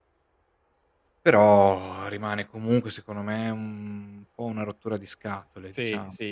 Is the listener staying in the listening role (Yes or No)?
No